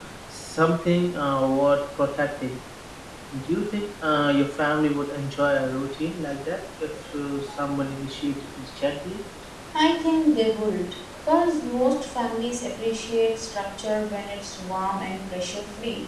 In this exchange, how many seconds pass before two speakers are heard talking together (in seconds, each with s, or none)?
none